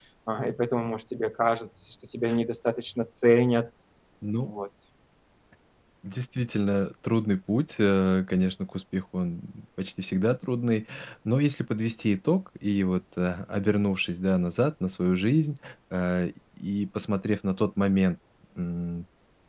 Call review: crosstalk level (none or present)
none